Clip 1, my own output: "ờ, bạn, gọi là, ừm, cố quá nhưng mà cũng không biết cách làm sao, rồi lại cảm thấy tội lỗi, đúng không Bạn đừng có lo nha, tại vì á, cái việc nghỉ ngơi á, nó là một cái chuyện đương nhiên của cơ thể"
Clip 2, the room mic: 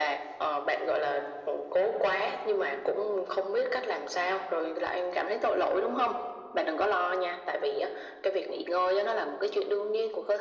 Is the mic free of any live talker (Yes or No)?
Yes